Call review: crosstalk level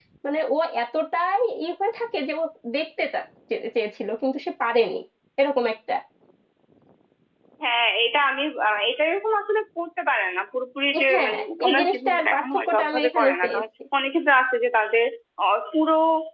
present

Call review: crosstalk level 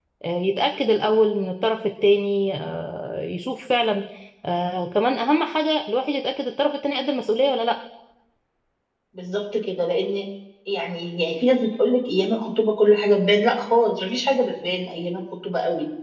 none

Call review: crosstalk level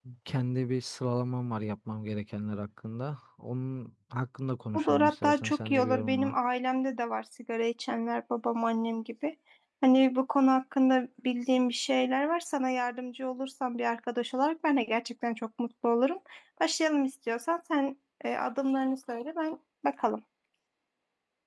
present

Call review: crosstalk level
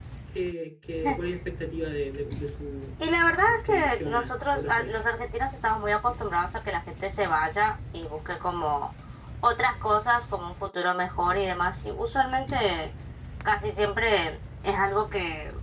present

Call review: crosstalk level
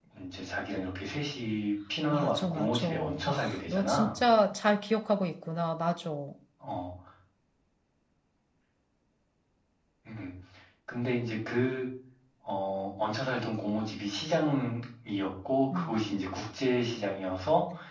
present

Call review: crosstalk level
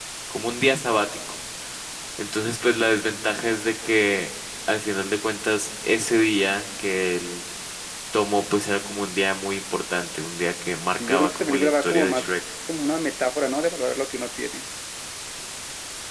present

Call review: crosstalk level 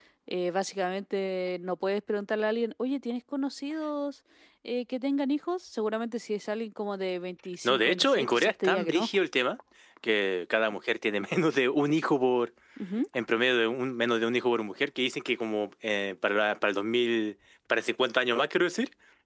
present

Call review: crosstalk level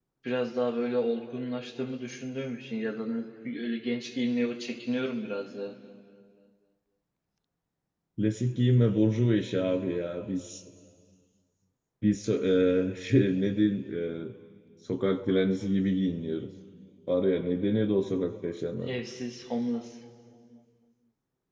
none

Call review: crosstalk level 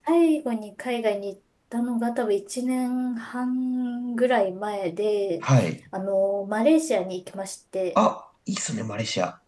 none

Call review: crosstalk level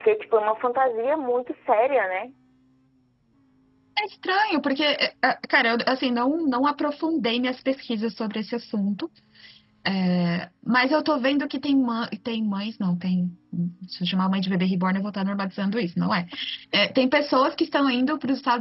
none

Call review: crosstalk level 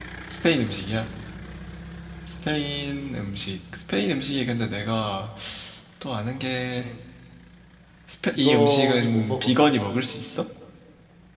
present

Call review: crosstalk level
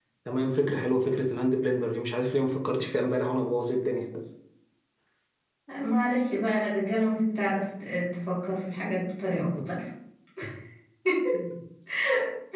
none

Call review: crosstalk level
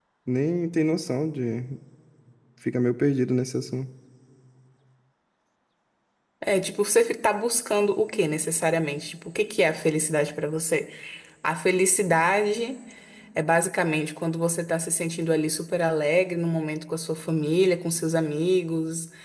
none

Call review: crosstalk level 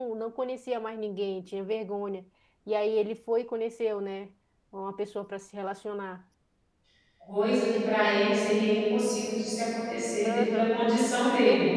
present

